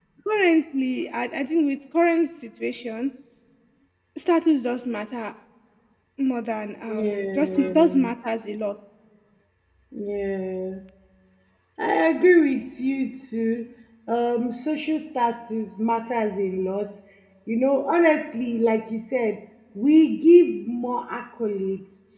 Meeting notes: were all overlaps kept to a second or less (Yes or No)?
No